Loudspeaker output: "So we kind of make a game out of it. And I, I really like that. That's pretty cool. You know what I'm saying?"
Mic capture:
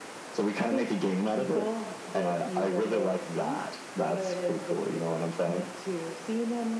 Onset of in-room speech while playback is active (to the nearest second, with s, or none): 1 s